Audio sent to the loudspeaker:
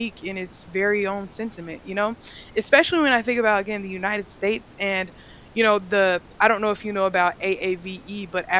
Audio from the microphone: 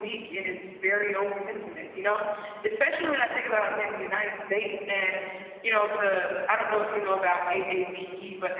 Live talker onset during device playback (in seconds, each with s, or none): none